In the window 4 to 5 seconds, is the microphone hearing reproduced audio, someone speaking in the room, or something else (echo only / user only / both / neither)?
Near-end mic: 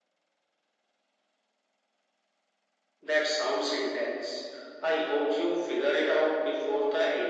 echo only